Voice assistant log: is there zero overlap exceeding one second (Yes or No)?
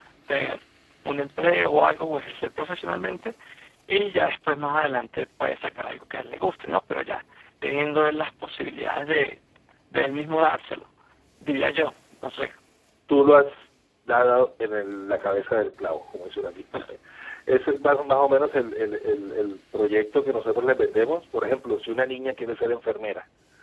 Yes